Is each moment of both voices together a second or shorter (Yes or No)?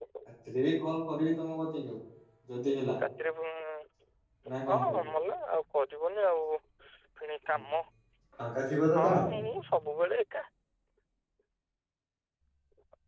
Yes